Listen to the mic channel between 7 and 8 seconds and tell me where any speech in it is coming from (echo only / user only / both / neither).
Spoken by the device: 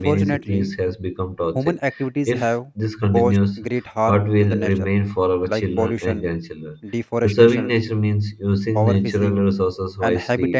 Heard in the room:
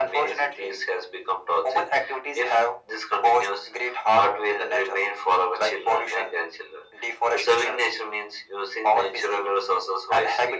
echo only